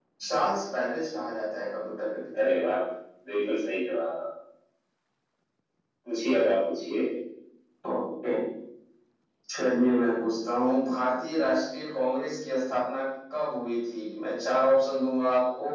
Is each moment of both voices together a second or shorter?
Yes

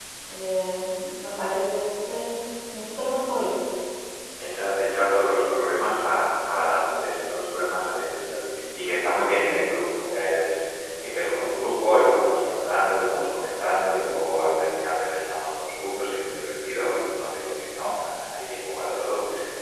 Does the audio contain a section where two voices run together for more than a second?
No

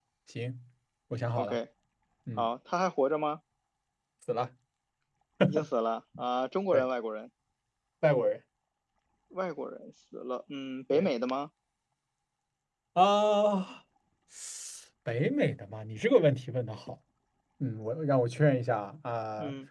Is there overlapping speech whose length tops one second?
No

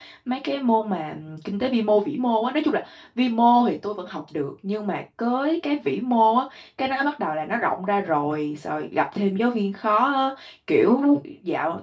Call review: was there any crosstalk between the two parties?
No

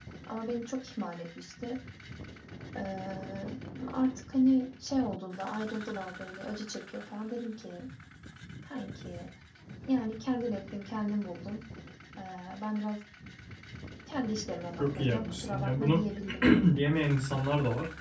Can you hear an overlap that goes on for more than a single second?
Yes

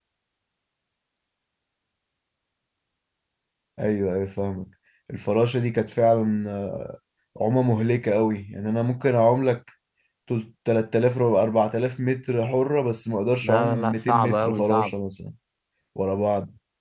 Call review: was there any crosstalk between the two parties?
Yes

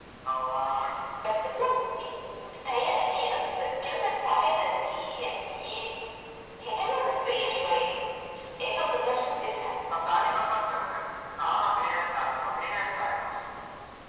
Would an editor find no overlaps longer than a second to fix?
Yes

